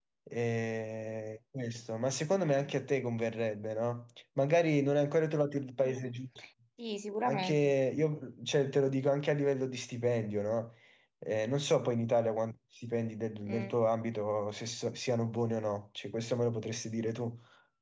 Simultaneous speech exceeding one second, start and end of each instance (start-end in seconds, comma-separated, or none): none